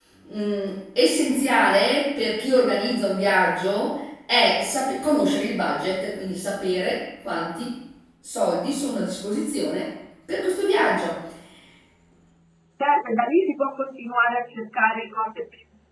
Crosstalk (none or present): none